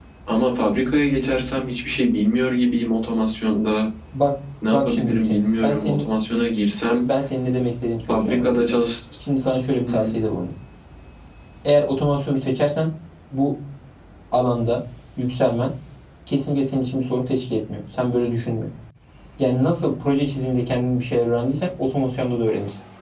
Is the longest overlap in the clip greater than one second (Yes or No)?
Yes